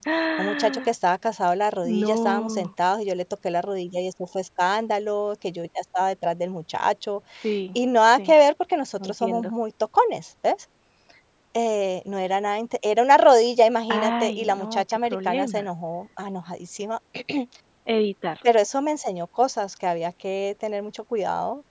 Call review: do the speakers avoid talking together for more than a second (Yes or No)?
No